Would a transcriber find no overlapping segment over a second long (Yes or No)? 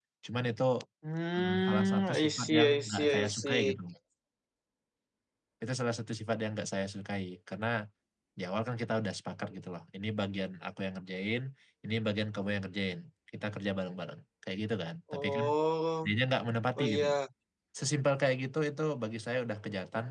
No